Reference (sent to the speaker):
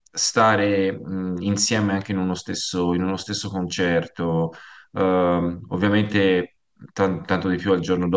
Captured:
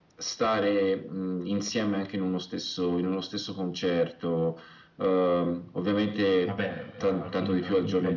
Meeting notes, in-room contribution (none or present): present